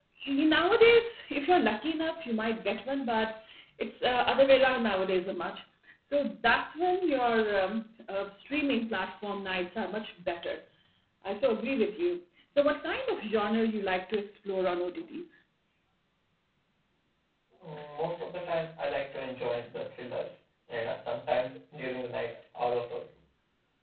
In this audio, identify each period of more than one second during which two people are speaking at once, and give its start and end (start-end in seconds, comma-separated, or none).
none